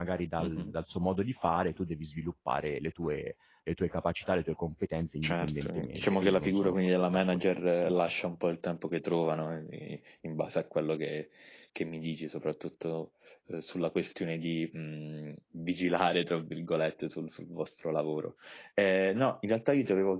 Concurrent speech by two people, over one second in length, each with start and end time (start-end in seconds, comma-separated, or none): 5.2-8.0